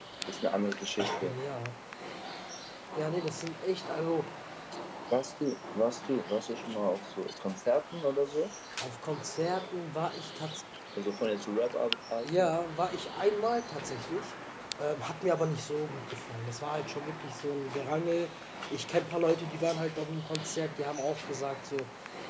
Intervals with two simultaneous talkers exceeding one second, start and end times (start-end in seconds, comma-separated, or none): none